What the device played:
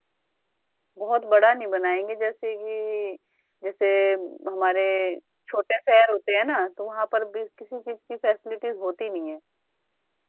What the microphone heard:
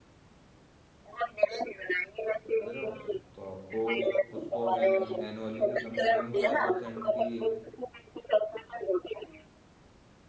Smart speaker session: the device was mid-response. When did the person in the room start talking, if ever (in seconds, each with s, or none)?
2.5 s